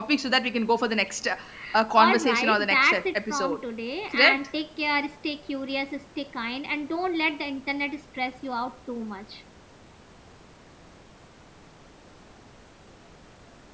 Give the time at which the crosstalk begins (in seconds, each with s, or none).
1.9 s